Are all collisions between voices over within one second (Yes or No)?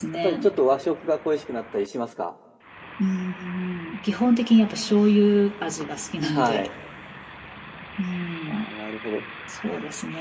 Yes